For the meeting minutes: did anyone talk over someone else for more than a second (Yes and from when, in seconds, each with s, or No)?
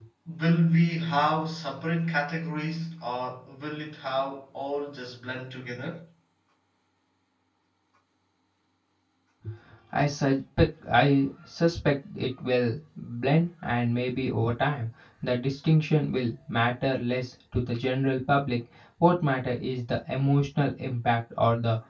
No